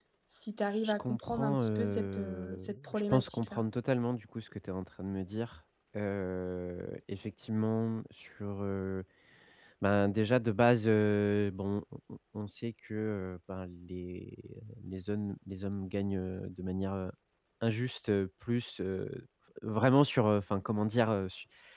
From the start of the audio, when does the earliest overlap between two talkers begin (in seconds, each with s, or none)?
0.8 s